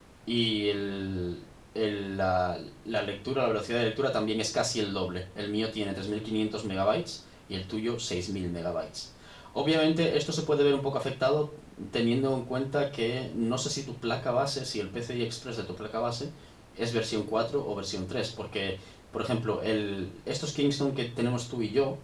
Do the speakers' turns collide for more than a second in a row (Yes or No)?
No